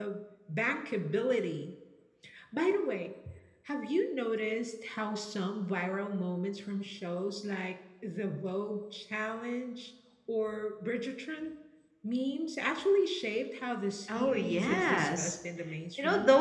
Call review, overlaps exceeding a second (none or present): present